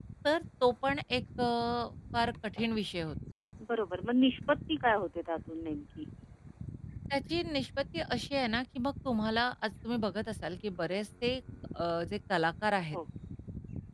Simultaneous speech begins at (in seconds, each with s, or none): none